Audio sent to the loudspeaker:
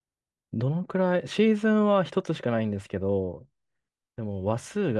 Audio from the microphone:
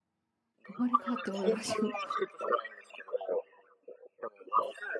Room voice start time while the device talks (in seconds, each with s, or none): 0.7 s